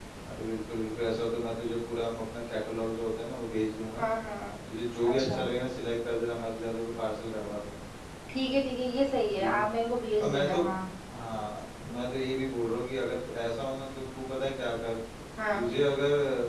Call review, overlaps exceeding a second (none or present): none